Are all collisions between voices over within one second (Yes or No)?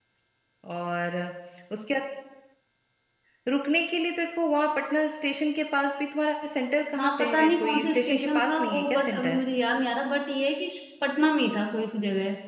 No